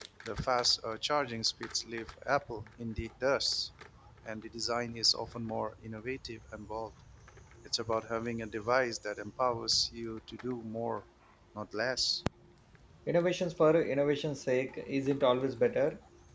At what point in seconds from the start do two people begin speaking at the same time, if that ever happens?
none

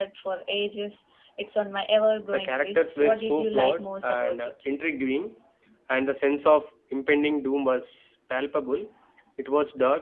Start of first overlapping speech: 2.3 s

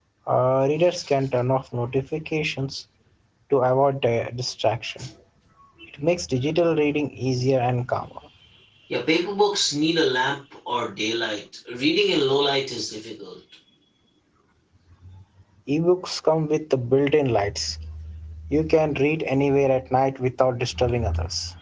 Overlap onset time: none

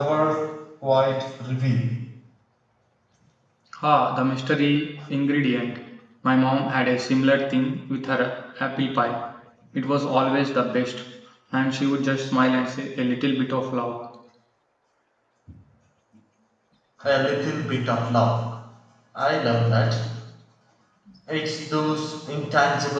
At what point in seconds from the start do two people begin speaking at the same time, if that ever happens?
none

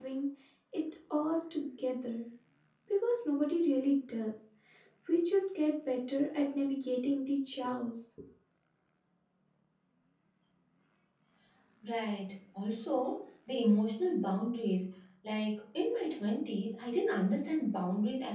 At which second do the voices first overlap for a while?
none

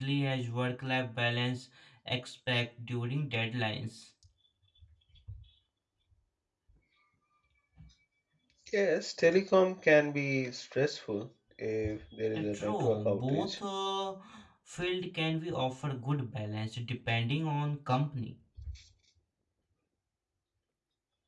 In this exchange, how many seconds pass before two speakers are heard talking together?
12.3 s

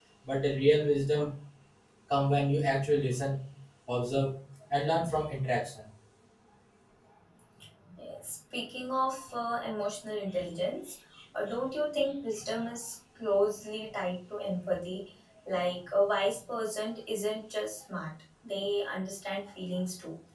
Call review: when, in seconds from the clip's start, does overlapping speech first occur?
none

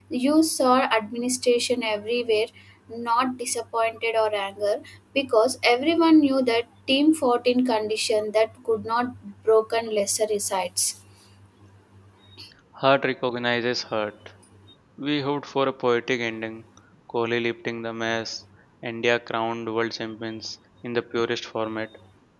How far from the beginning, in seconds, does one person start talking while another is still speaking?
none

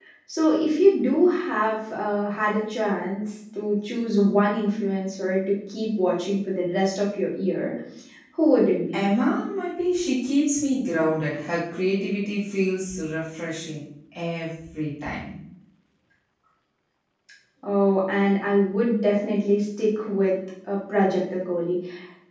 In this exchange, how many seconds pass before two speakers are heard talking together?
none

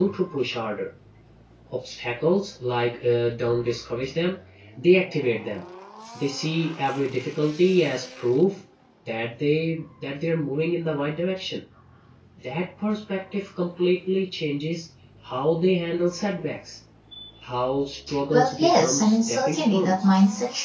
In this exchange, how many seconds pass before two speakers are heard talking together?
18.3 s

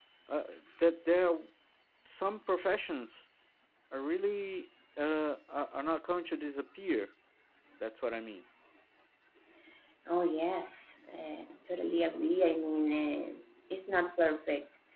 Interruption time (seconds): none

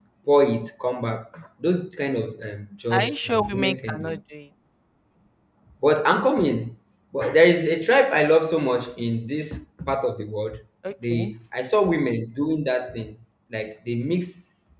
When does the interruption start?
2.9 s

